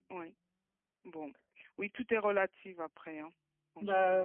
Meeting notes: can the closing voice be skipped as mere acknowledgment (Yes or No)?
No